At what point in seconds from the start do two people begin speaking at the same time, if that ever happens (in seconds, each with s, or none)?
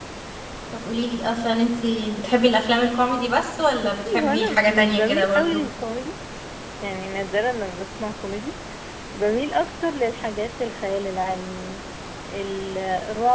3.8 s